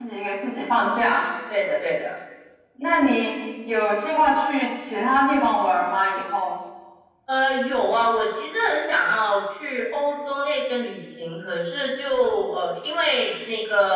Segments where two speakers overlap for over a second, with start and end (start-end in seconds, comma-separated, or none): none